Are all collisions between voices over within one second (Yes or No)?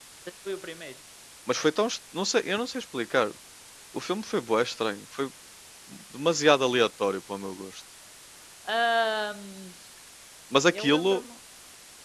Yes